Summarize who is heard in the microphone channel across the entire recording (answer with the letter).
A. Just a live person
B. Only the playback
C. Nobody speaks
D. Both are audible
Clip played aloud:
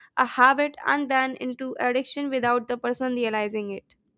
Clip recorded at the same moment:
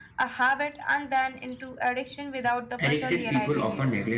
D